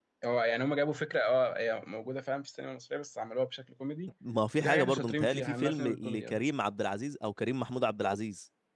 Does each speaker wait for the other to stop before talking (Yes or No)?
No